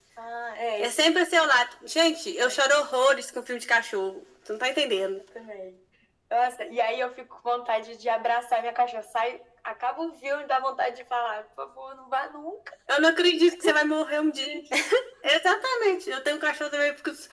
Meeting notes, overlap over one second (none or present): none